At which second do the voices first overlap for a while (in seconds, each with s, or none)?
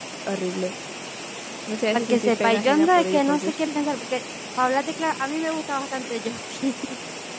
1.9 s